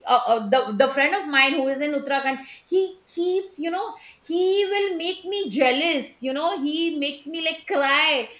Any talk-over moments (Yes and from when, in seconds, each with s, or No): No